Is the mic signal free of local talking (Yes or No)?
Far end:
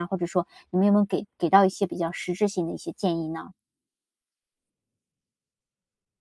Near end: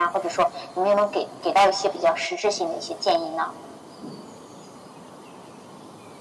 Yes